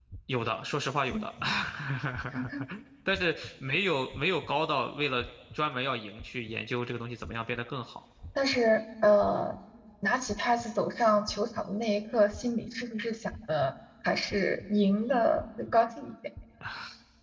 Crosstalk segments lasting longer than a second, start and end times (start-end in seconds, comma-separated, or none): none